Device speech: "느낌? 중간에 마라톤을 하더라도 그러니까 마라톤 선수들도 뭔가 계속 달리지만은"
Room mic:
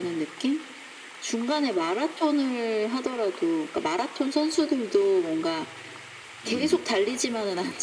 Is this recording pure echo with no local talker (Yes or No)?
No